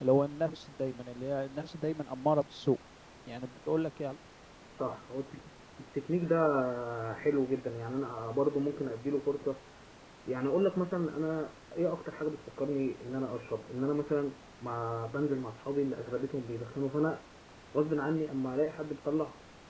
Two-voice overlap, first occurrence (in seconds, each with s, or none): none